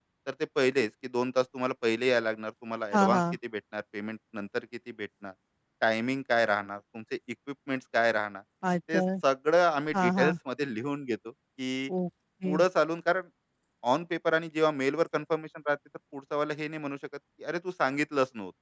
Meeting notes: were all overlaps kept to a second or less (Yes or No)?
Yes